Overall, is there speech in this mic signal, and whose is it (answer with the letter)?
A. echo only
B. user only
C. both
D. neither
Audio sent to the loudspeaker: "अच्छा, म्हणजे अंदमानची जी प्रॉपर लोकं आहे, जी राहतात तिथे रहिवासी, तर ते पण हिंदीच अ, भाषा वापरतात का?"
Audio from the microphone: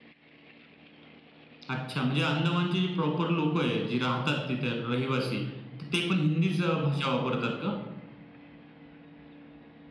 A